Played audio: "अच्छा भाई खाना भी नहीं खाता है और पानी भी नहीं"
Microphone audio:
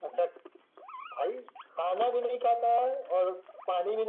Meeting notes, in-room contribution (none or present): none